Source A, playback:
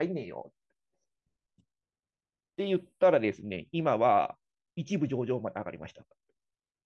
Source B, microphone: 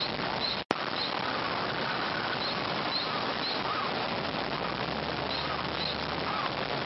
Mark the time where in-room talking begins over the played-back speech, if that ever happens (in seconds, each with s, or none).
none